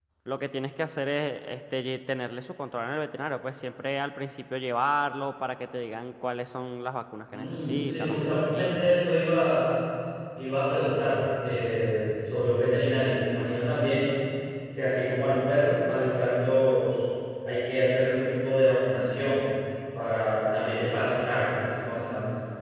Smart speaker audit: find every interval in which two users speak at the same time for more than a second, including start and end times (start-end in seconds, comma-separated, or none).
7.3-9.0